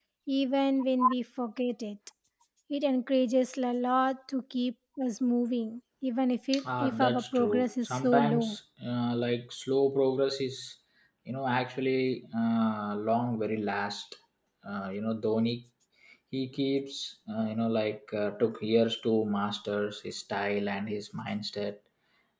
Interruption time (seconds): 6.8 s

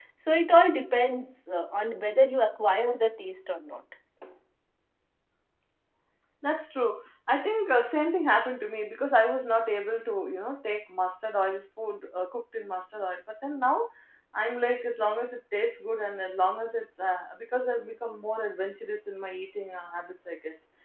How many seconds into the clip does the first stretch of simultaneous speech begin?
none

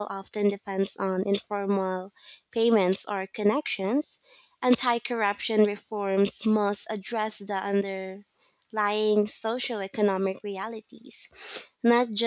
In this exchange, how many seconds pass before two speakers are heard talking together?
none

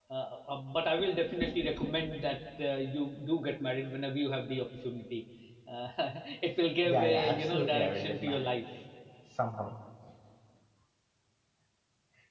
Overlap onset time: 6.8 s

